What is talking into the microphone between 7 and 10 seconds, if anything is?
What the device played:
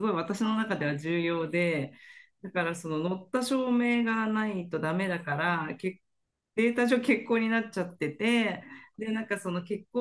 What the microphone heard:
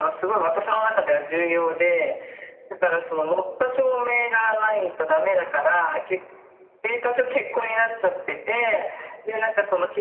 echo only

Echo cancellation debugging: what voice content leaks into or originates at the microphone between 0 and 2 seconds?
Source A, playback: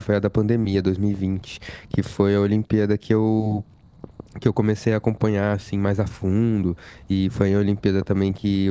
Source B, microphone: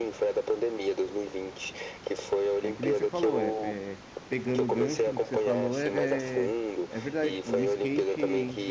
echo only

